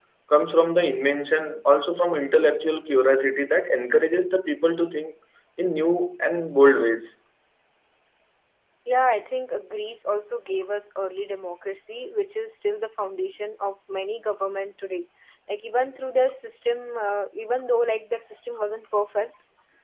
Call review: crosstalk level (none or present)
none